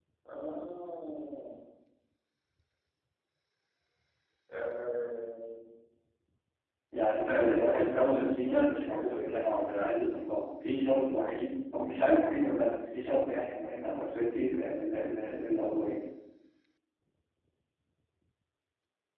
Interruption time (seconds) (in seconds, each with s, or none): 7.3 s